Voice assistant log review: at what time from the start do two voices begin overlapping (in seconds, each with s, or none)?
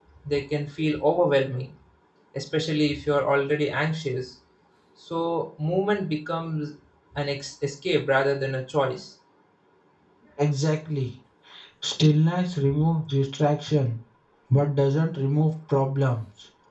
none